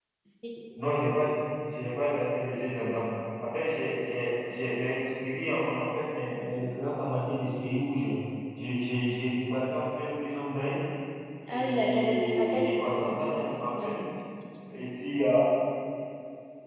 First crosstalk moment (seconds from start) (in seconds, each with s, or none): 11.5 s